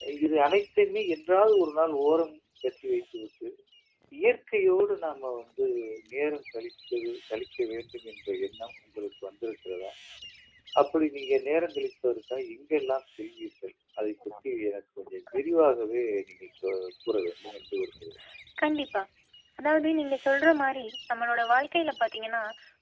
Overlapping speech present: No

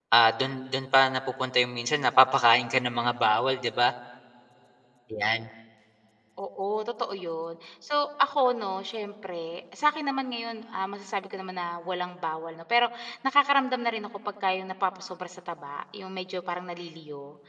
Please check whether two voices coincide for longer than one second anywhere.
No

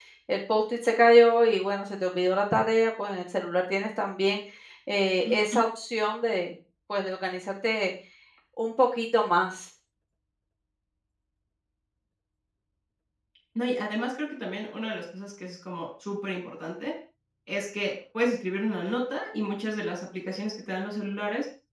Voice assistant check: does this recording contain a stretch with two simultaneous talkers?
No

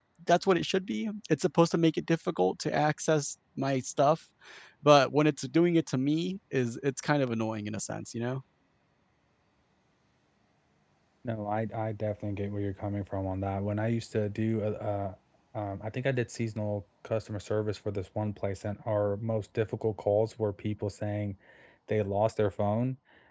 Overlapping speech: No

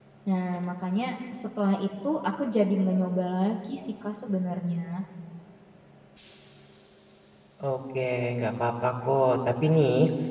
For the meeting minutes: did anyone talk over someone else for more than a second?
No

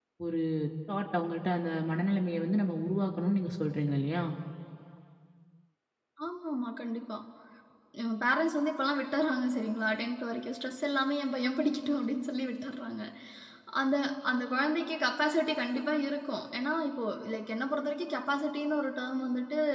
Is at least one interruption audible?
No

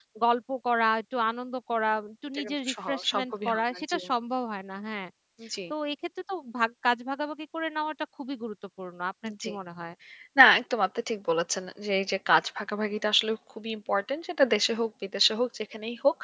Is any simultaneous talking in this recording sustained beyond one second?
Yes, from 2.3 s

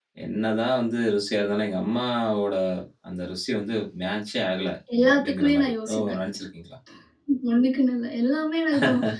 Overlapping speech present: Yes, from 5.0 s

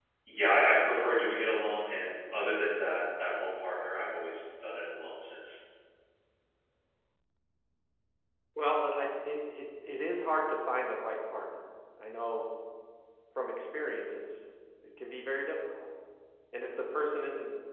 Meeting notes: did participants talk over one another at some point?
No

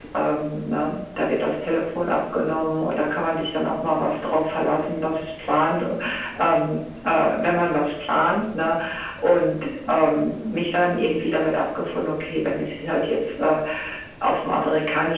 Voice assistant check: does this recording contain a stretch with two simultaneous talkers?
No

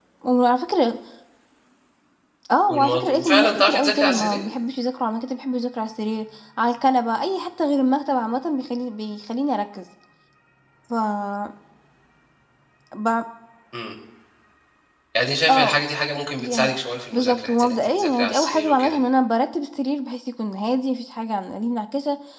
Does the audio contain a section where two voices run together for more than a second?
Yes, from 2.7 s

